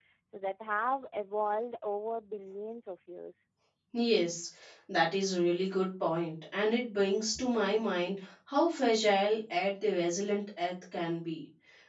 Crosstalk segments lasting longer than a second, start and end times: none

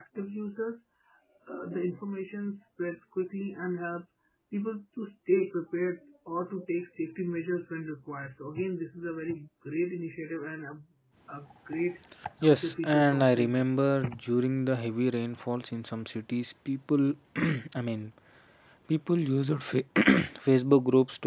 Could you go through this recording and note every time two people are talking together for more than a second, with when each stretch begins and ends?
12.5-13.7

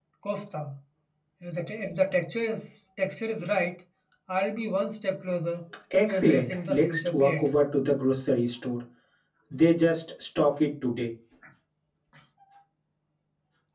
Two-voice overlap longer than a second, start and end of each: 6.1-7.5

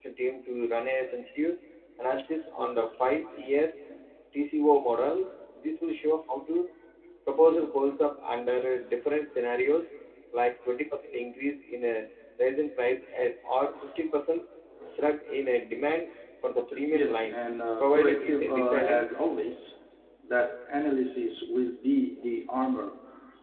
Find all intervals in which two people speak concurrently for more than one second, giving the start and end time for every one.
17.8-19.0

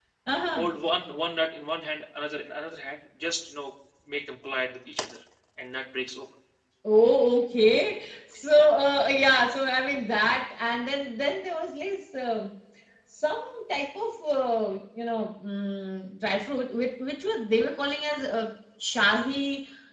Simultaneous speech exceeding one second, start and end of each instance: none

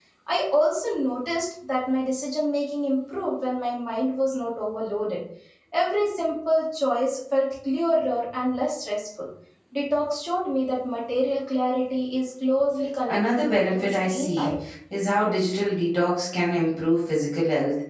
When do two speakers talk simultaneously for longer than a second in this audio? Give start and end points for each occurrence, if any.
13.1-14.5

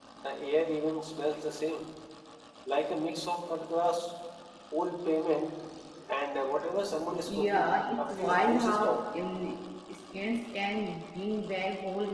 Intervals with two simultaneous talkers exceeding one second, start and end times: 7.3-9.0

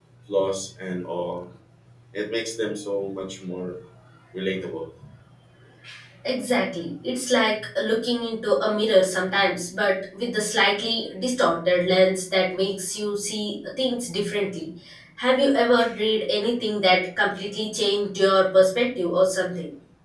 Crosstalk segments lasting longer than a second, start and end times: none

